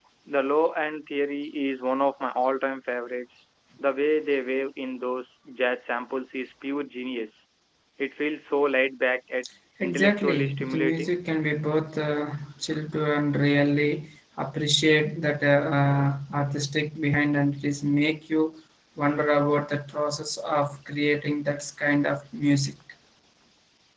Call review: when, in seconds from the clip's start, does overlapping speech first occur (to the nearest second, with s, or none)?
10 s